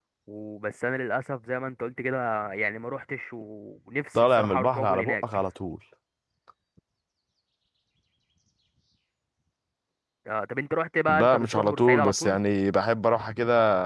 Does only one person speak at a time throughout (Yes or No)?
No